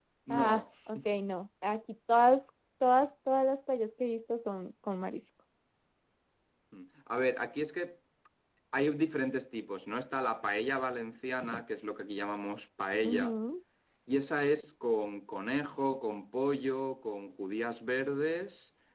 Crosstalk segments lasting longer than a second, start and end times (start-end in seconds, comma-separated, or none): none